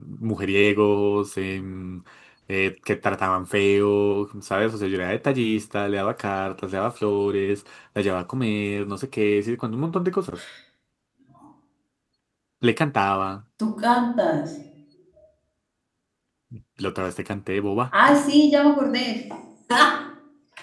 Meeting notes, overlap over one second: none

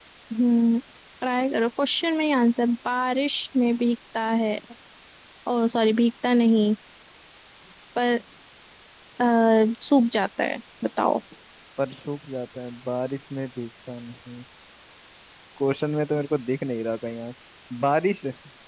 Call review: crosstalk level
none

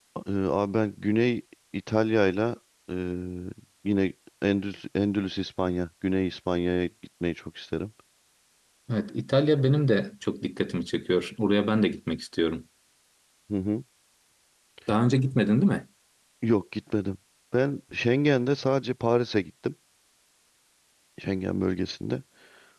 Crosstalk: none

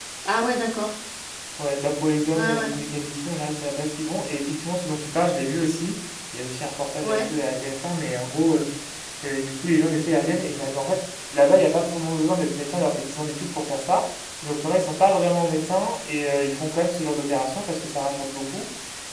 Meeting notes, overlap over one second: none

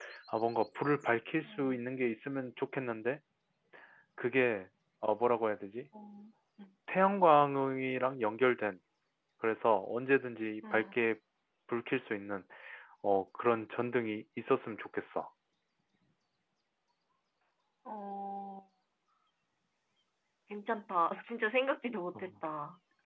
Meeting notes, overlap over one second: none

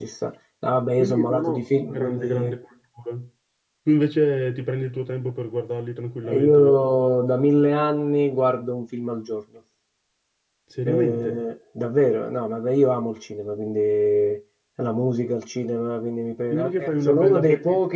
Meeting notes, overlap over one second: present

